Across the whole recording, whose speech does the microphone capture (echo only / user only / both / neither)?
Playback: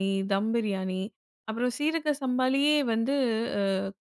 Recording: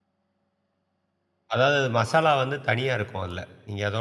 user only